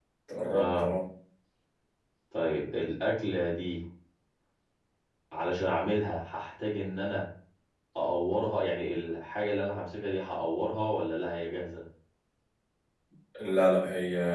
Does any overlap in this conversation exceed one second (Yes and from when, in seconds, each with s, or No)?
No